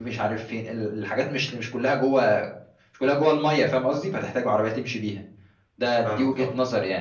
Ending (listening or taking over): listening